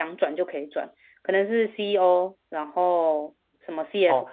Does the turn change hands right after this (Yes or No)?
Yes